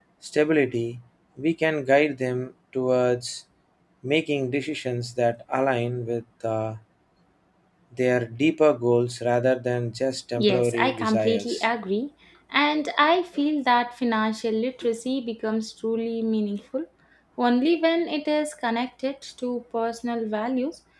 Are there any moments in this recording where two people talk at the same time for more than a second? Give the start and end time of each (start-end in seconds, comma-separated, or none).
10.4-11.6